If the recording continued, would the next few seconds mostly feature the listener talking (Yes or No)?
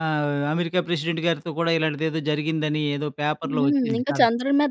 Yes